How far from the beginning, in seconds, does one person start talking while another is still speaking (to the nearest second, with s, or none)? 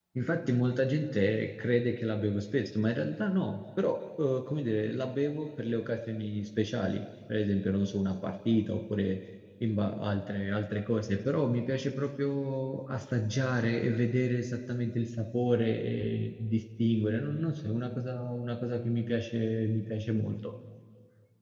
none